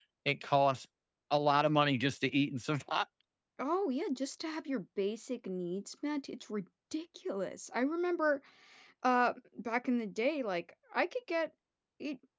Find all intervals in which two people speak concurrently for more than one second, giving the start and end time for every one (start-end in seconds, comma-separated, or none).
none